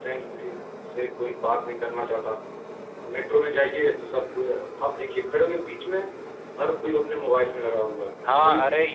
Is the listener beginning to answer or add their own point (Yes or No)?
Yes